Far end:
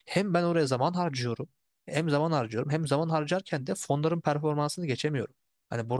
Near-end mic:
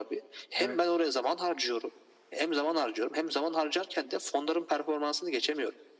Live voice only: Evet,

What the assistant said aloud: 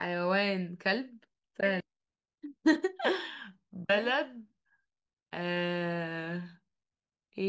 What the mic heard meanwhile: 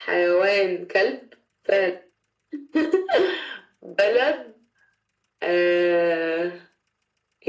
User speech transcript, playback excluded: none

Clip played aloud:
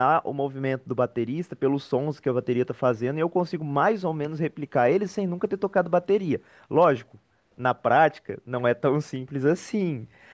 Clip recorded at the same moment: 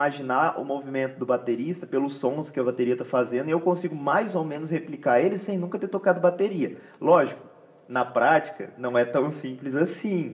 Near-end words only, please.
none

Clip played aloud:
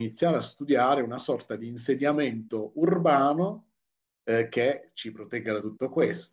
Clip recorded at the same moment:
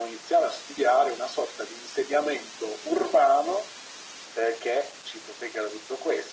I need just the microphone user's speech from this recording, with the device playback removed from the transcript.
none

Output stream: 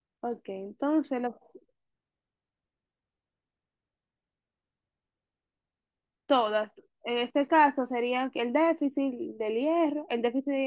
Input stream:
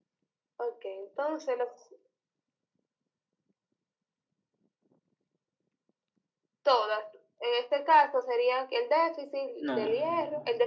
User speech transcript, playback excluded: No.

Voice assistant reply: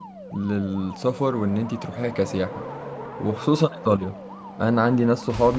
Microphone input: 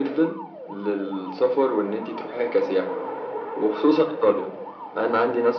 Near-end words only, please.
none

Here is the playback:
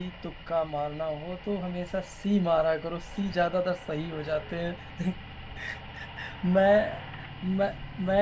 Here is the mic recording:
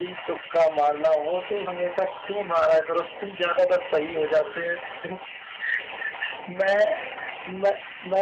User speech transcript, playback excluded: none

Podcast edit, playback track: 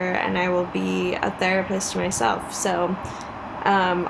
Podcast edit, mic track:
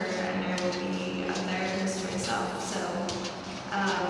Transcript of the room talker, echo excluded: none

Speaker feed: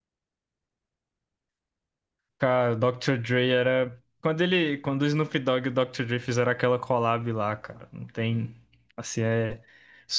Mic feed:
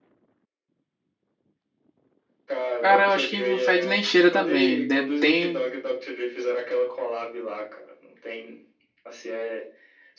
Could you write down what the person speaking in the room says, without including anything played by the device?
Cara, eu acho que não fede nem cheira também. De- tem

